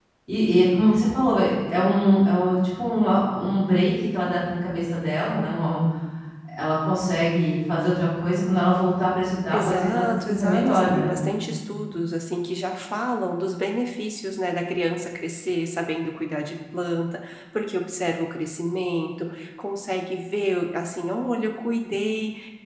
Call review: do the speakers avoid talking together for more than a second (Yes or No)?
No